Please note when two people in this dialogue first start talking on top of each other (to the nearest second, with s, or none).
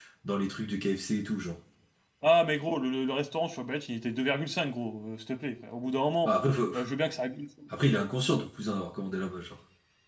none